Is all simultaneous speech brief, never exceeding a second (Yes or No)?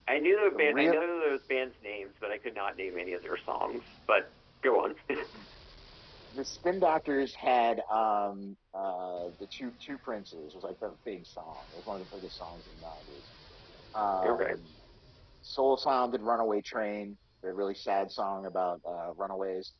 Yes